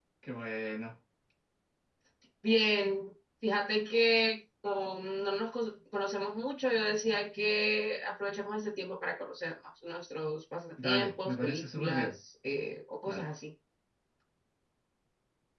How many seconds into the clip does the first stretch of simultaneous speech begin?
10.8 s

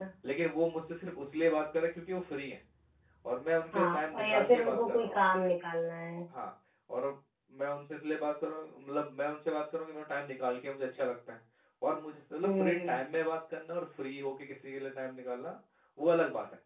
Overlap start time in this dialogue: 3.7 s

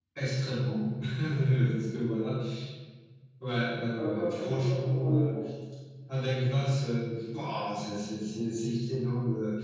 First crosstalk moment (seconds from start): 4.0 s

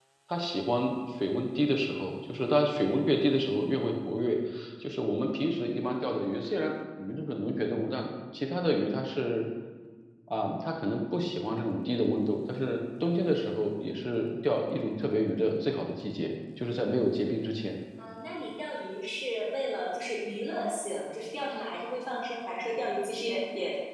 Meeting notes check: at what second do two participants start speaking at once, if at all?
none

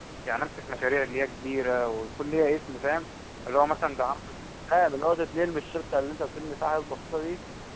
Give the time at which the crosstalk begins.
none

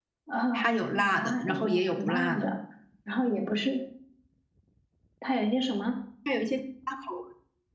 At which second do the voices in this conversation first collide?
0.5 s

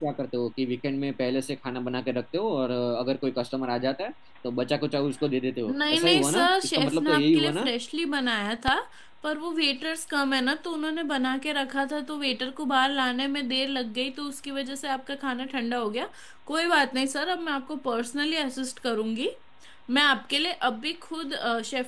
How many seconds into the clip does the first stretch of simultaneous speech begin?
5.7 s

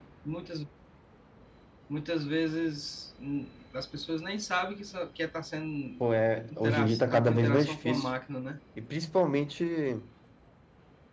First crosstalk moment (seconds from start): 6.5 s

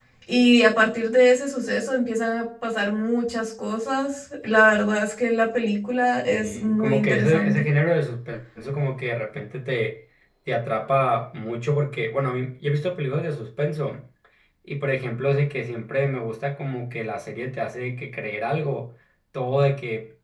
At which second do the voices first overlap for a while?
6.3 s

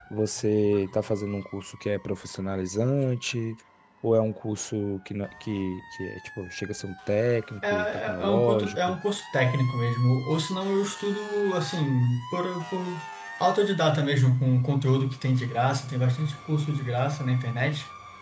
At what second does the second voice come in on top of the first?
7.6 s

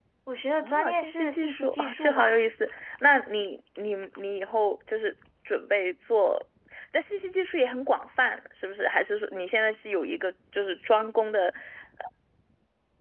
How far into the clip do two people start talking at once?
0.6 s

